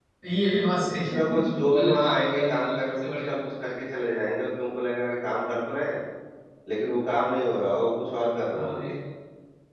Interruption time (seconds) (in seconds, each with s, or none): 1.0 s